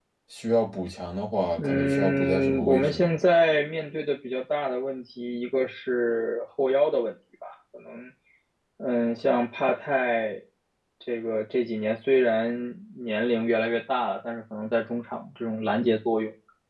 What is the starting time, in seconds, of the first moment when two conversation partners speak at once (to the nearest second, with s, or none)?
2 s